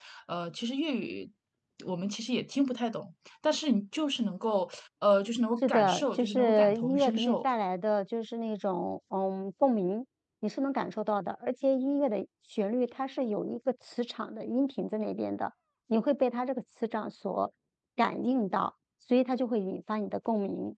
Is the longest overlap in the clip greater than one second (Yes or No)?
Yes